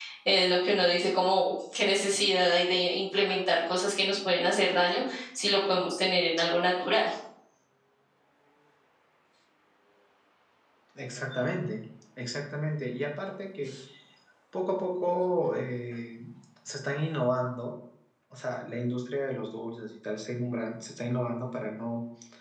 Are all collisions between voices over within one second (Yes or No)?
Yes